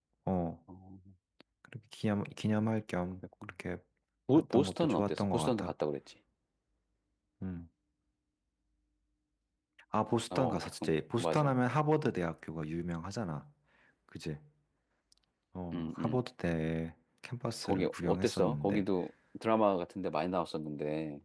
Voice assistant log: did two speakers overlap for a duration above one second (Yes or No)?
Yes